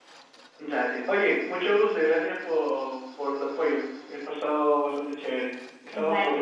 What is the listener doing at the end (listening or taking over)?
taking over